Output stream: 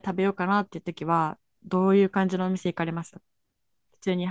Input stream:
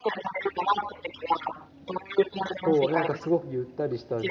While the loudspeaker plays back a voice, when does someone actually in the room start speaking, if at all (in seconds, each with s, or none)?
2.6 s